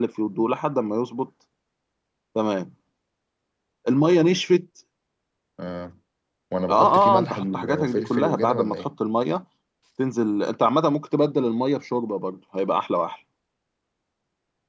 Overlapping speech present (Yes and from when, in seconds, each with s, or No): Yes, from 6.7 s